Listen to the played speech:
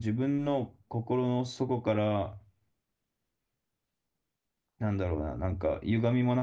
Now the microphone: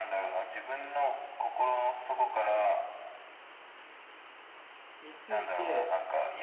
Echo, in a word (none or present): present